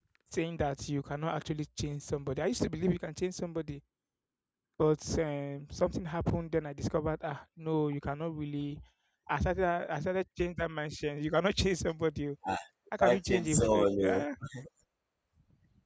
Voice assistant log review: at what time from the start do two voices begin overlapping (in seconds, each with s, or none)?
13.0 s